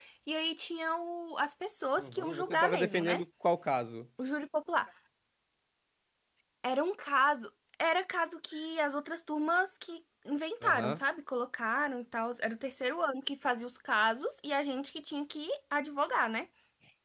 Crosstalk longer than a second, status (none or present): present